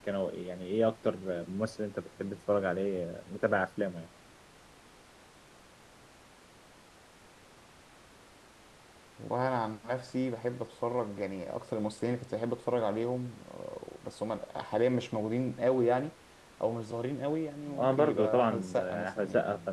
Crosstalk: present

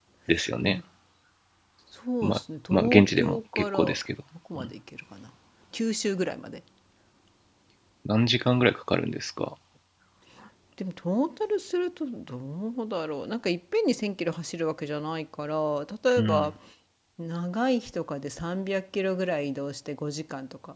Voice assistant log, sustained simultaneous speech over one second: present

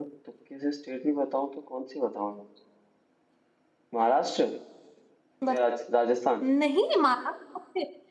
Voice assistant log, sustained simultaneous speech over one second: none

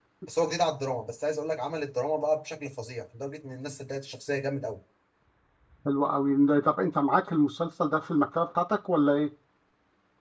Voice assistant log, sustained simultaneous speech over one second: none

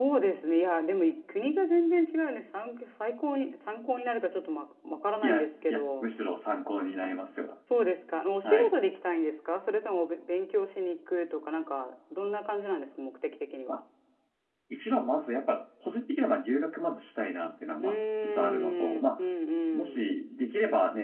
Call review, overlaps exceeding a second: present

